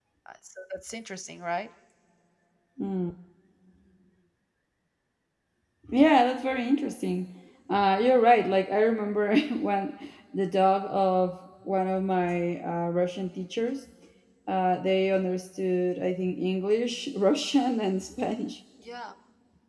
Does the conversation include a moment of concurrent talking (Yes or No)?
No